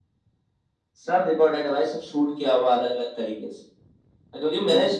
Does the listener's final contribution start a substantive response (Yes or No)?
No